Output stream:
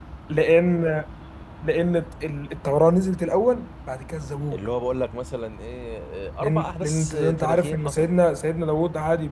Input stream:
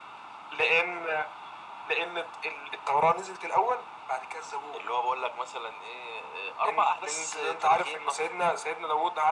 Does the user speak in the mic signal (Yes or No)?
No